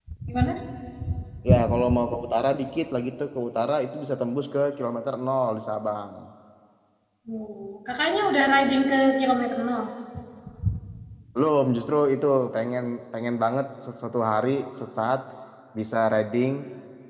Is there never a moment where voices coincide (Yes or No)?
Yes